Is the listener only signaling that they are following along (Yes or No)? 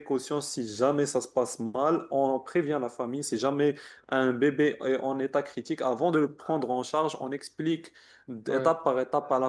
Yes